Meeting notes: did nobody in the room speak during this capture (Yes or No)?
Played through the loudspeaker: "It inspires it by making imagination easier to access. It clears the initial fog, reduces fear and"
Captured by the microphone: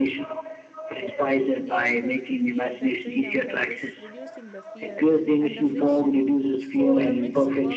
No